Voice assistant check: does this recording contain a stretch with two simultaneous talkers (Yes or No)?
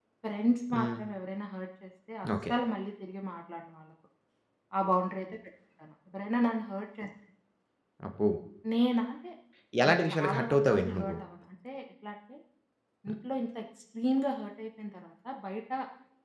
Yes